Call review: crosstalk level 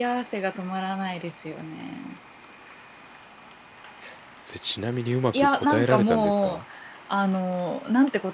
present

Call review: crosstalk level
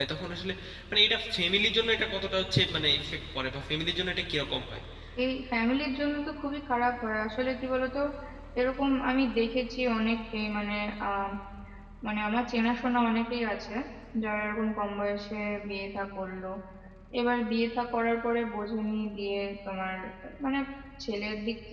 none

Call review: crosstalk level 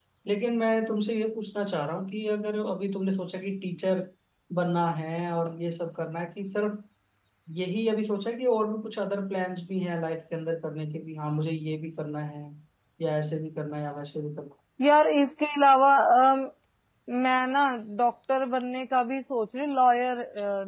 none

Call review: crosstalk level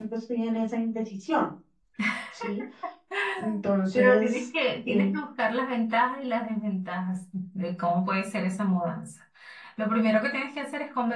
present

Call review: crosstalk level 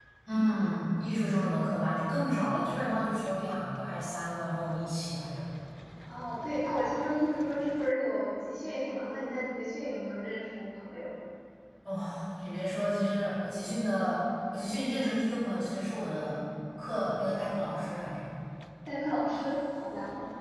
none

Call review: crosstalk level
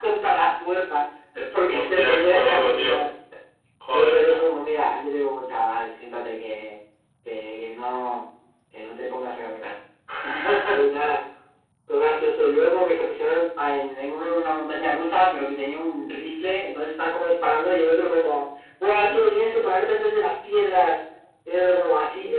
present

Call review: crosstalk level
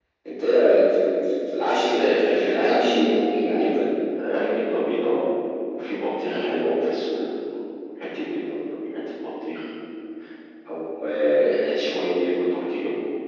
present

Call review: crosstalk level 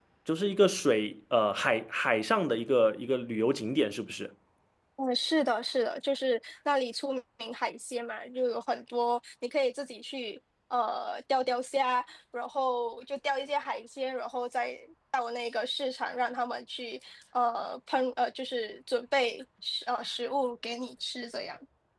none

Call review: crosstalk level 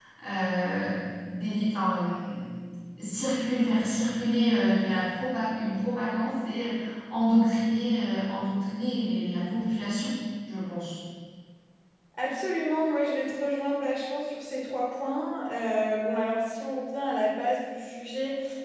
none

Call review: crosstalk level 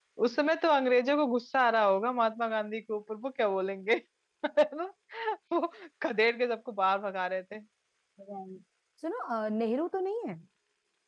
none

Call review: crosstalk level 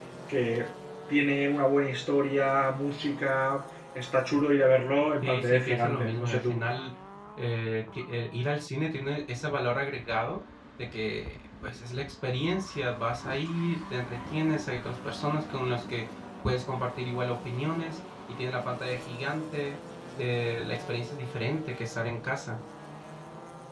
present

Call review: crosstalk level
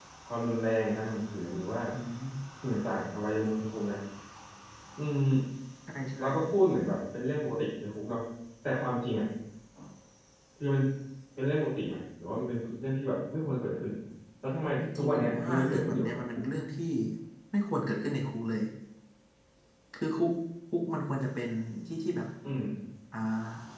present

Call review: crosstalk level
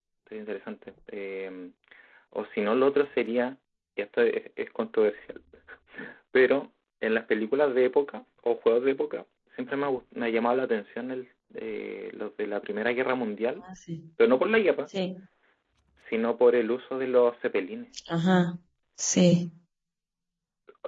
none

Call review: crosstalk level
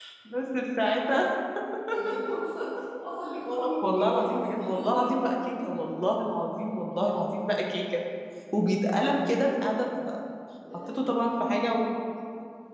present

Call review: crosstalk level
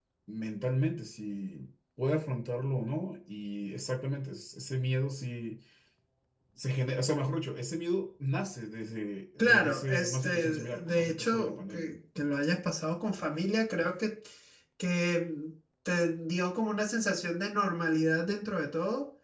present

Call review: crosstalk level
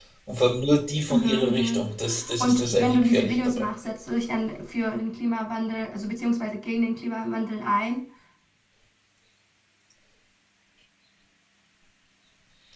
present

